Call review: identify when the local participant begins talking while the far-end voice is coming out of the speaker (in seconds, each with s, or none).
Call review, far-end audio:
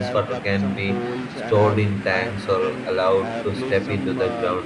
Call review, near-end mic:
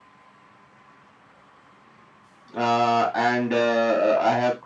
2.5 s